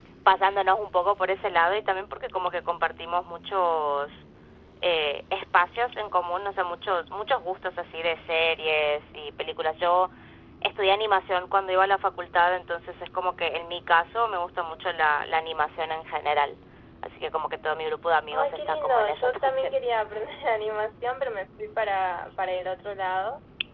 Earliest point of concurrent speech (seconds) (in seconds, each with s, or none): 18.3 s